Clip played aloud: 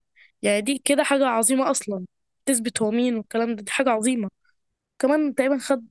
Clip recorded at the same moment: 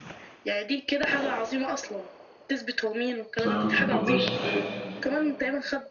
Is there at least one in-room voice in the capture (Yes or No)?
Yes